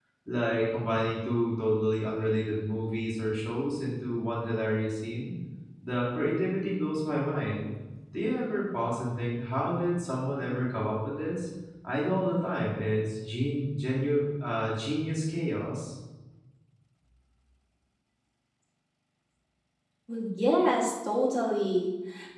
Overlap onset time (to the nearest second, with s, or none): none